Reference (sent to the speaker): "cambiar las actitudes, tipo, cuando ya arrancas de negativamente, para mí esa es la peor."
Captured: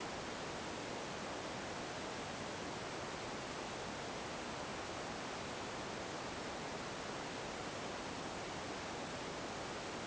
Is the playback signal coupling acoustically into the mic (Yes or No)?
No